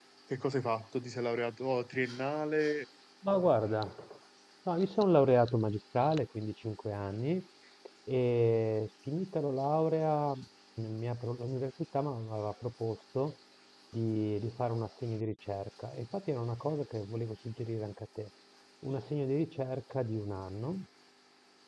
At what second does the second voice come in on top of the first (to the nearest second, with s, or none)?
none